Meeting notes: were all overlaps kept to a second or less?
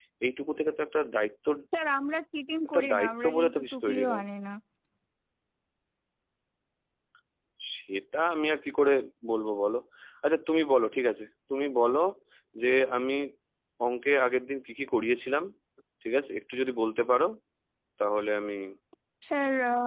No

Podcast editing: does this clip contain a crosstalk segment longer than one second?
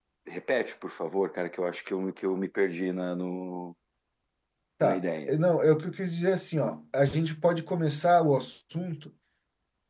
No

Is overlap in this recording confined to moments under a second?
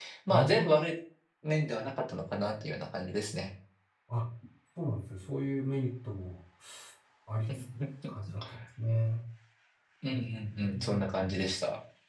Yes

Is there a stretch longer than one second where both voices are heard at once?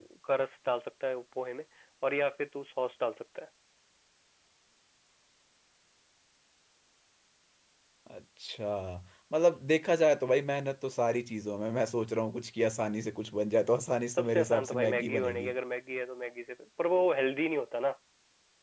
Yes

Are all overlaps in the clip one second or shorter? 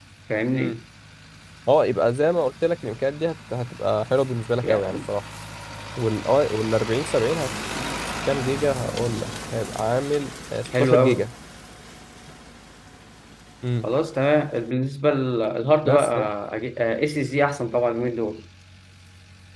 Yes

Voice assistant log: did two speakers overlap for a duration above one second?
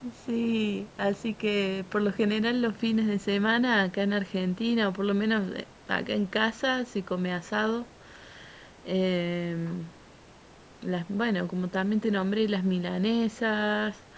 No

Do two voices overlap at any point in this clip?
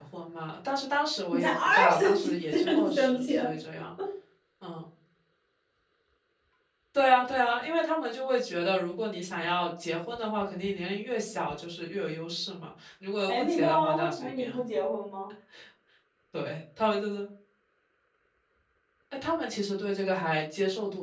Yes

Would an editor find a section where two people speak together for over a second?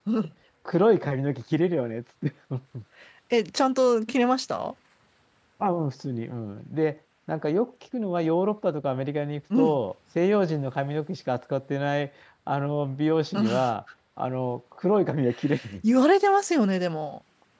No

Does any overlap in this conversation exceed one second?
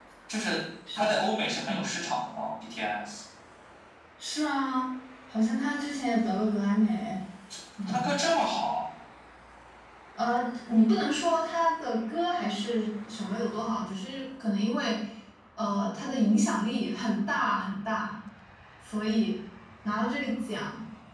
No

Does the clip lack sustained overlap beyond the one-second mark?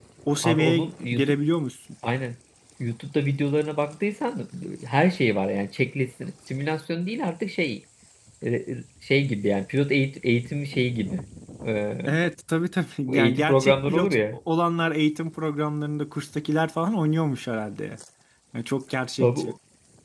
No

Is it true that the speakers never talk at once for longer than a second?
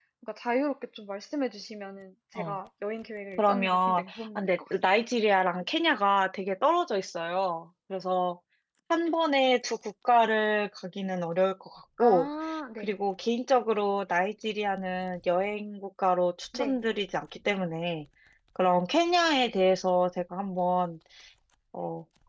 No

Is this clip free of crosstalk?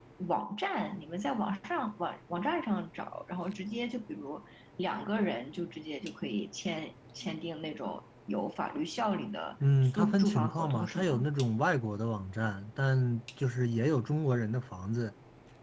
No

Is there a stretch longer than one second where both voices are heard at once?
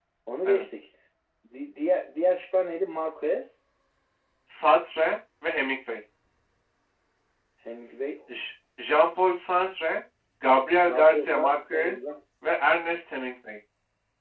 Yes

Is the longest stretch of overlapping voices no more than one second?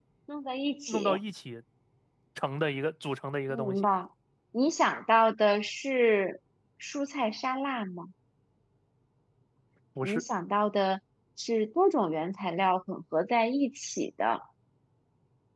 Yes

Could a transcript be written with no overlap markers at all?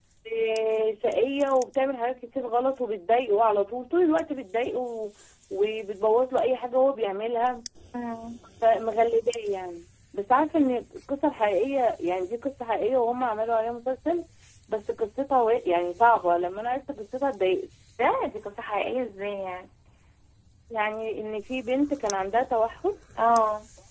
Yes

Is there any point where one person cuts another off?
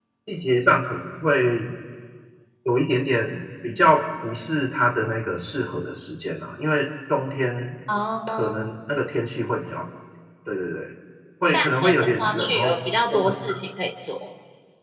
Yes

